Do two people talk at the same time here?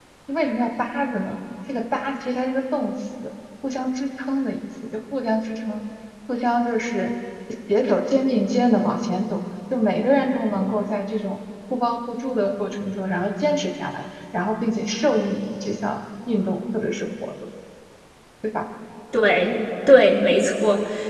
No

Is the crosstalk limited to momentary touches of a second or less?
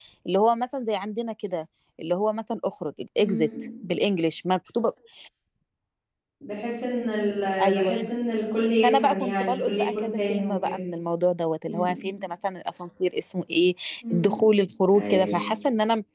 No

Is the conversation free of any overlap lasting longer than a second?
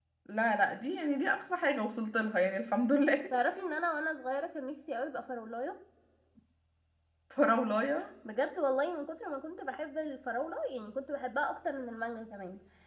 Yes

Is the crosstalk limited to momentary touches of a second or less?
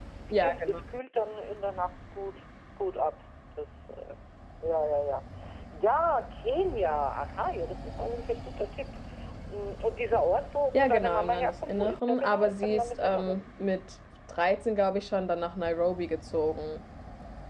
No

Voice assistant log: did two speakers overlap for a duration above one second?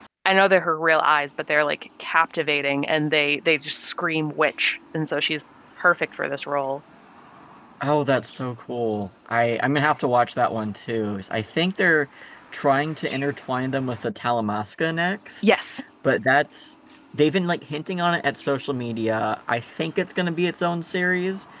No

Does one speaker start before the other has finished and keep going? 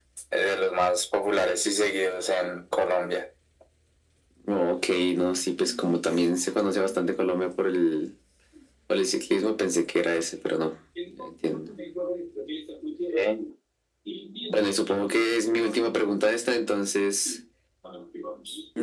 Yes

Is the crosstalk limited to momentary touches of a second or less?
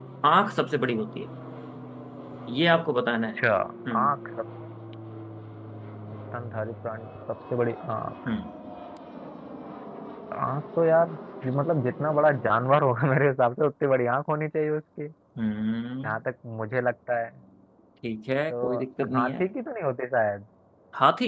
Yes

